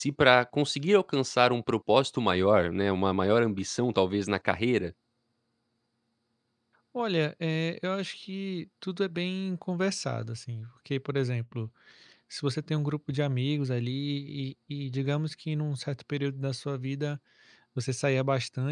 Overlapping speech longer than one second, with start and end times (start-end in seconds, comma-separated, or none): none